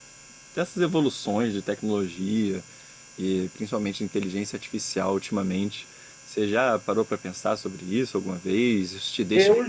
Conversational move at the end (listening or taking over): taking over